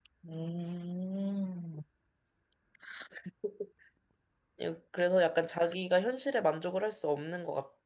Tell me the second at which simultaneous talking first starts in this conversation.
none

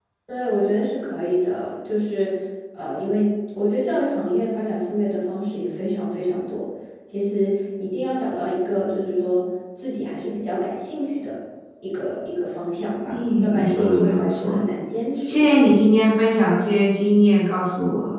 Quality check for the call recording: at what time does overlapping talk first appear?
13.1 s

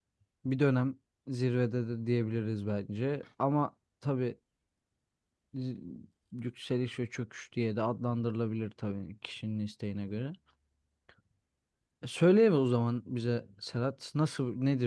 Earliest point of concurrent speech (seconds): none

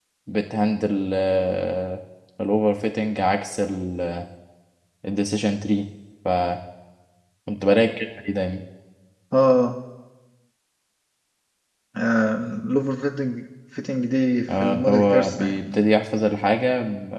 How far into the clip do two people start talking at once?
14.5 s

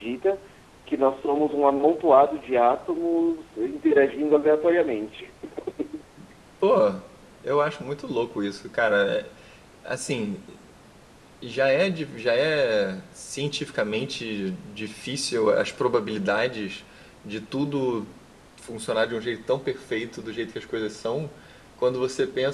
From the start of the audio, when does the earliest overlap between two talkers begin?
none

